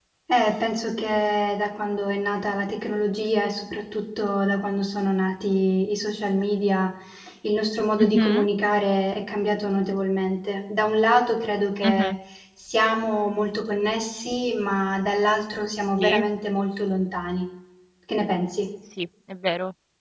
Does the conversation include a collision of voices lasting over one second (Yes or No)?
No